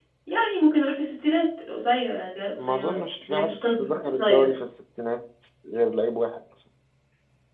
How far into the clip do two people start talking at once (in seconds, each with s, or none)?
2.6 s